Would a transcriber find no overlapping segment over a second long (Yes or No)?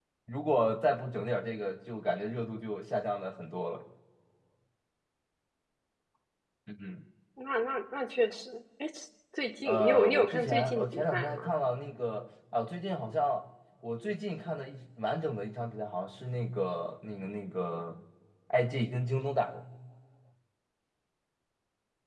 No